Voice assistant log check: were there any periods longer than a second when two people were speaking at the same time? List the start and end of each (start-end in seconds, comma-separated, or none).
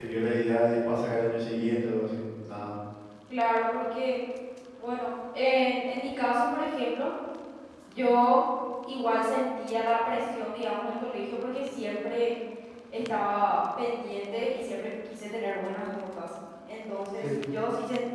none